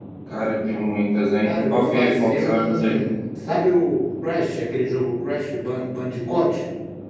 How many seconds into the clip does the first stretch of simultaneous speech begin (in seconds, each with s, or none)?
1.4 s